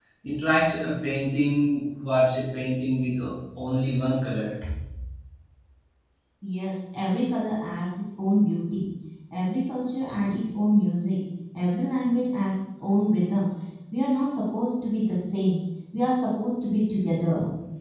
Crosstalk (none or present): none